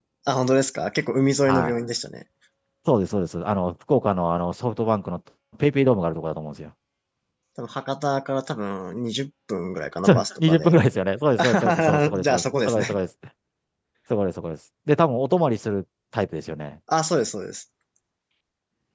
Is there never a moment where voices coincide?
No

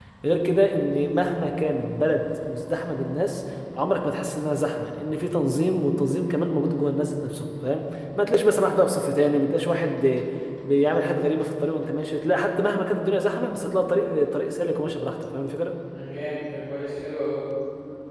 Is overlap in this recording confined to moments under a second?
Yes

